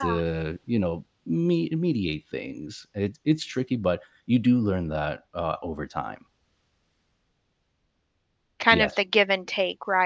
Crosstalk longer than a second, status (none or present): none